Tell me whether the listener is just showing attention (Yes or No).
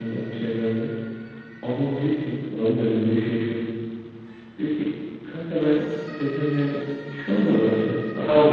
No